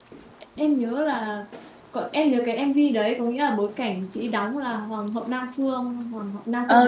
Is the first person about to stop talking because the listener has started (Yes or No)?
Yes